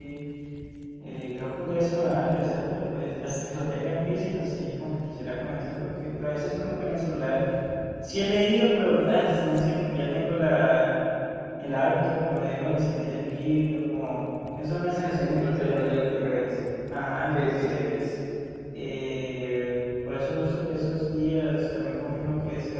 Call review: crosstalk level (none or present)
present